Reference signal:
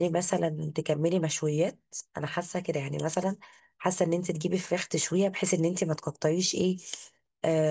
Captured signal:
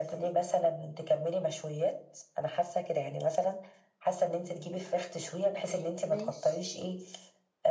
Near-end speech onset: 5.5 s

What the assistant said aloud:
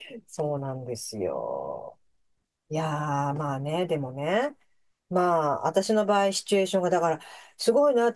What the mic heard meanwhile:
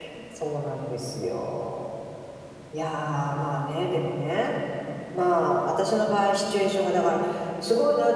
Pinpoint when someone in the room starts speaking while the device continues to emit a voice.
none

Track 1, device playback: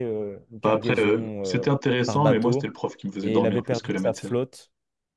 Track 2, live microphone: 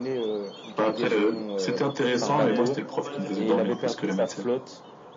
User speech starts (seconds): 1.9 s

